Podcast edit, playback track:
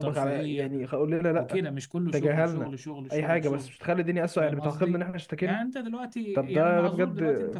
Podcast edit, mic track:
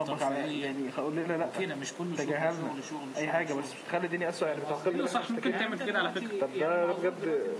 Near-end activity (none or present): present